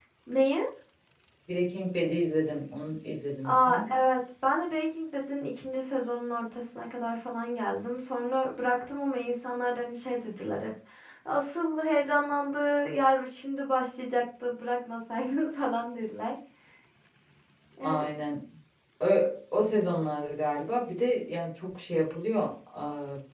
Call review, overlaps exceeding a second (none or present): none